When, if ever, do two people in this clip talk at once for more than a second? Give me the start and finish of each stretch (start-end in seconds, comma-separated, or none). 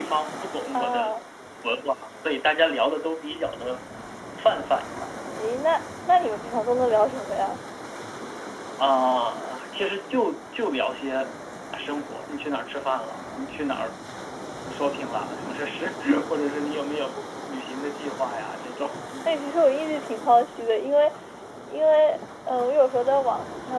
none